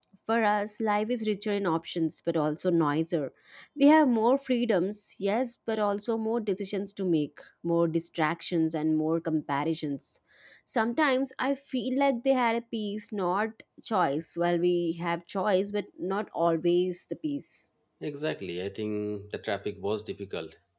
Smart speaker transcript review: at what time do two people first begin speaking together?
none

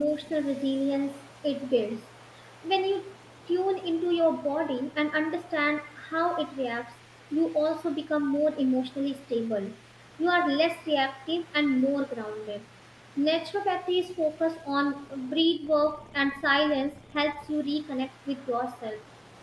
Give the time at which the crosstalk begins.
none

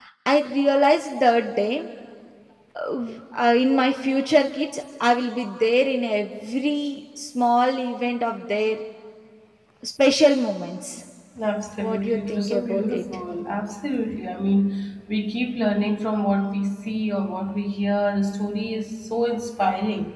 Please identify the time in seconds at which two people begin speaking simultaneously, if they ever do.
12 s

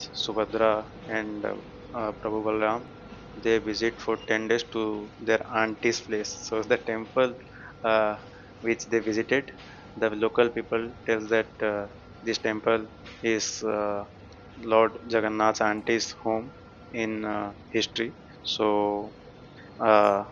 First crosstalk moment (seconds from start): none

